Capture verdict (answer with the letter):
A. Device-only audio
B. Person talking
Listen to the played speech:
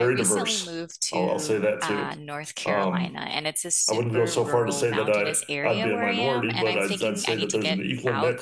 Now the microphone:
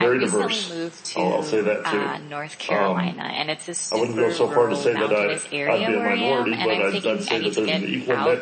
A